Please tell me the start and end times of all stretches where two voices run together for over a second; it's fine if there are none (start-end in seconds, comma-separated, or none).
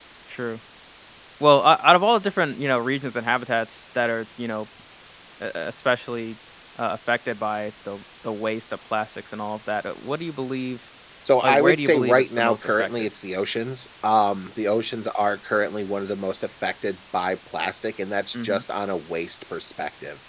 11.4-12.9